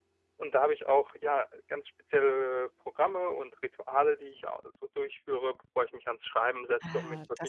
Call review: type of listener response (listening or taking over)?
taking over